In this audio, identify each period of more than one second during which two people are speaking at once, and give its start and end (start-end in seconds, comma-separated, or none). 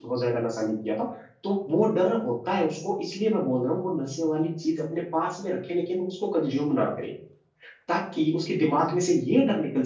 none